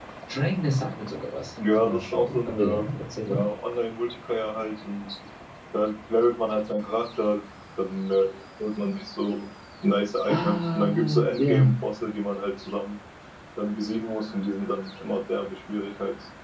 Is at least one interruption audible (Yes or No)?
Yes